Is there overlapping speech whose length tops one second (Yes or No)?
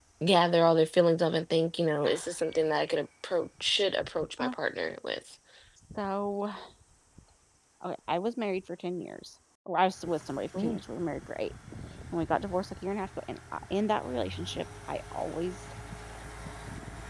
No